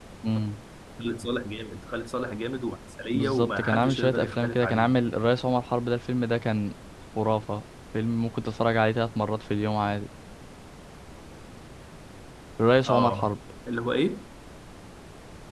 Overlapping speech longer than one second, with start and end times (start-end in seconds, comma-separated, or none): 3.1-4.9